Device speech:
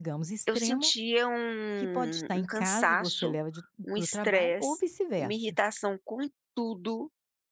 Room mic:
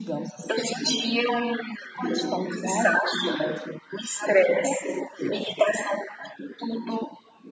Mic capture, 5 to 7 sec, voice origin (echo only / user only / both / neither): echo only